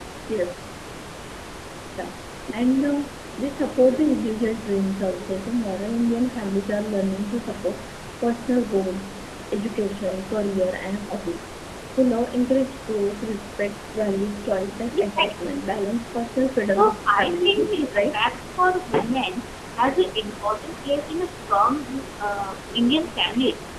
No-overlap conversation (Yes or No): No